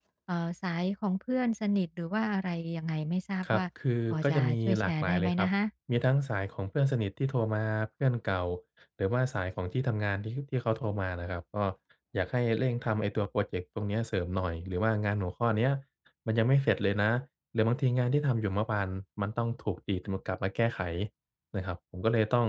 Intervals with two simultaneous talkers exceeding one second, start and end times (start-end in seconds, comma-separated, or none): 4.1-5.5